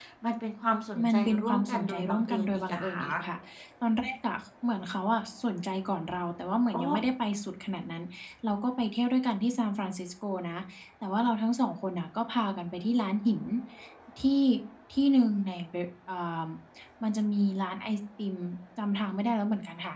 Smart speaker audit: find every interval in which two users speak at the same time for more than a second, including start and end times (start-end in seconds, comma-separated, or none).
1.1-3.1